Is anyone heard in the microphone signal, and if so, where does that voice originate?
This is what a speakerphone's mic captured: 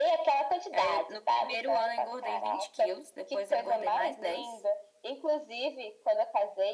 echo only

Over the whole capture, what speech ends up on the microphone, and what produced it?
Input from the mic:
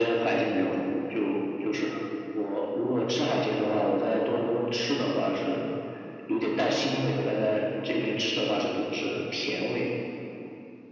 echo only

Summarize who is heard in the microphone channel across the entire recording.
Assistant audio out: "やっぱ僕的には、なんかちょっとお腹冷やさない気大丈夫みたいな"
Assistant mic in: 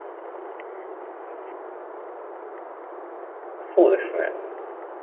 user only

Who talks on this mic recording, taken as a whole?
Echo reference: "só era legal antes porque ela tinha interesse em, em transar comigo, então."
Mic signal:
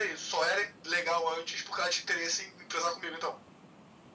echo only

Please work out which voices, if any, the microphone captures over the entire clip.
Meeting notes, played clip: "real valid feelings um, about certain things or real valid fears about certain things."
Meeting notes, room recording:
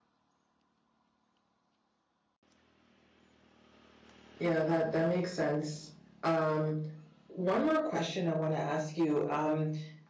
user only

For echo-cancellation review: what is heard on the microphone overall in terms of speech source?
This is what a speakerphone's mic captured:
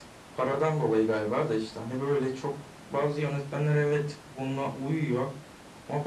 echo only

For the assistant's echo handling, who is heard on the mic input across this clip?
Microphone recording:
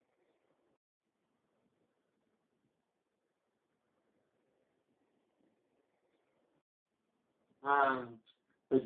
user only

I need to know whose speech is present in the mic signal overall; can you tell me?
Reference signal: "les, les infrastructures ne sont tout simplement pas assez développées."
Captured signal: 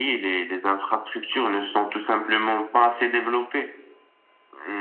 echo only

